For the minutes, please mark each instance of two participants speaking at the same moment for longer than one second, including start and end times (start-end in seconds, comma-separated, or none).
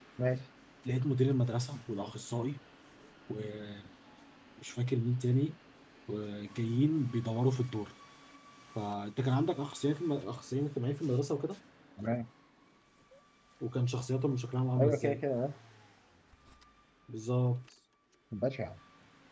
none